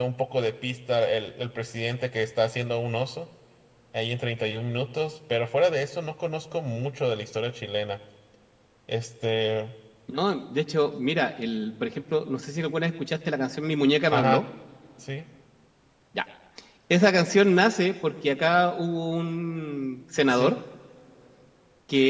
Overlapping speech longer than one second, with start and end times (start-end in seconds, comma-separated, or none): none